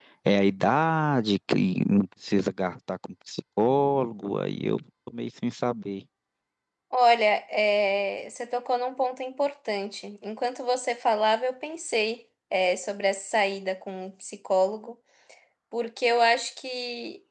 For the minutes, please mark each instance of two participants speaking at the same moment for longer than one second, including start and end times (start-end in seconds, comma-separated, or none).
none